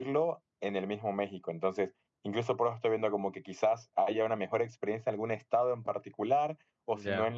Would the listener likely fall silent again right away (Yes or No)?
Yes